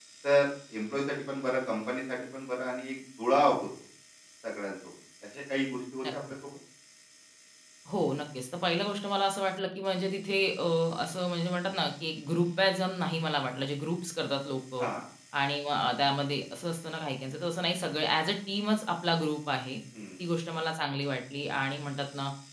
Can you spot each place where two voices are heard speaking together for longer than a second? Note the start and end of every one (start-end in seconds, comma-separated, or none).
none